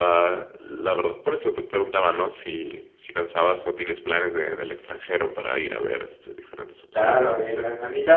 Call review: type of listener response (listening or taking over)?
taking over